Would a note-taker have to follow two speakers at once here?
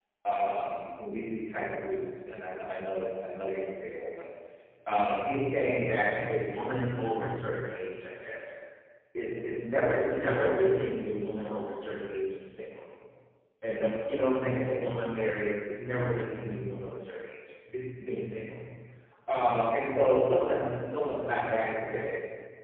No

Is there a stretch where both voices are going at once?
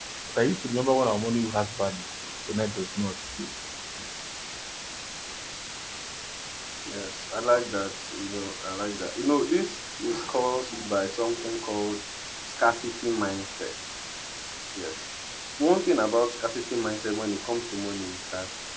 No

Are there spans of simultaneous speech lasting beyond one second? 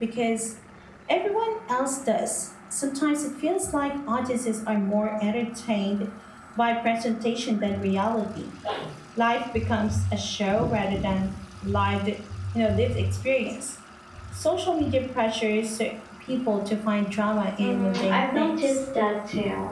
Yes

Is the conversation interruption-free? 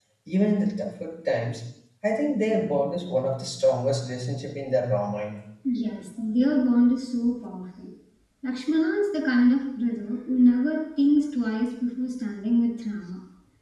Yes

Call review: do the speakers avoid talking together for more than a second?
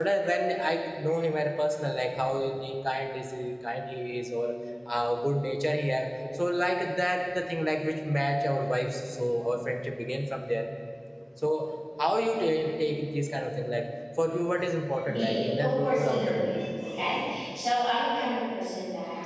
No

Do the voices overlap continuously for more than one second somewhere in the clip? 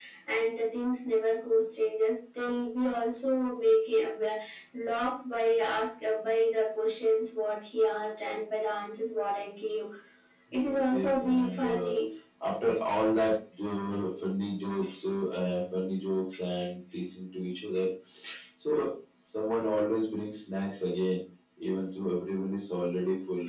Yes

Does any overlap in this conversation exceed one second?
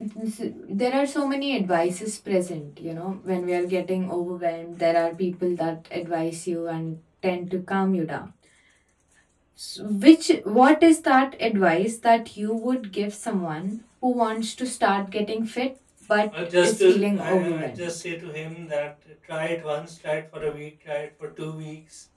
Yes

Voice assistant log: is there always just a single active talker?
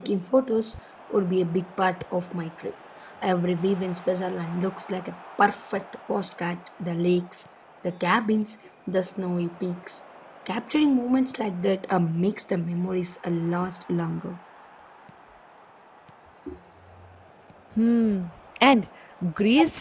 Yes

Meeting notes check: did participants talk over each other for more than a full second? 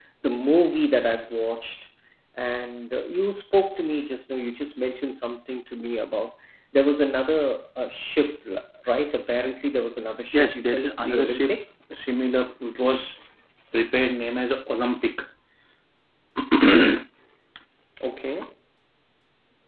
Yes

